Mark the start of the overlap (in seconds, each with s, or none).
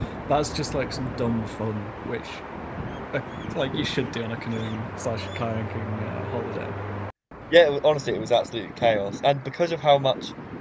none